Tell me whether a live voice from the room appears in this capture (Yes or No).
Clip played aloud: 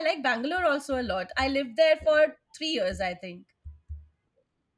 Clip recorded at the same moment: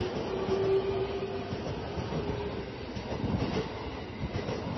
No